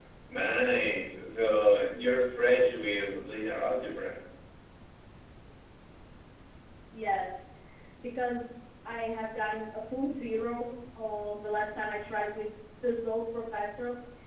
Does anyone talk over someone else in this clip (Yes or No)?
No